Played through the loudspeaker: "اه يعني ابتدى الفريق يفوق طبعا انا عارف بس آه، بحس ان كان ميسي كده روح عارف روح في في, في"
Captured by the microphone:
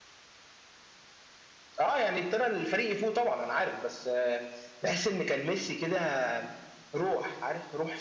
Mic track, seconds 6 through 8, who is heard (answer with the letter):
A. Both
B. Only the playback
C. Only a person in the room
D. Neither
B